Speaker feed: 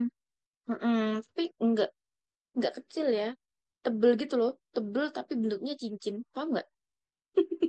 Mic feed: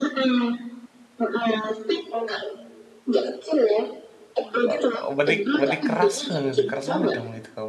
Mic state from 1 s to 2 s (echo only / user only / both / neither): echo only